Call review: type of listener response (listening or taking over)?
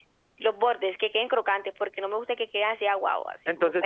taking over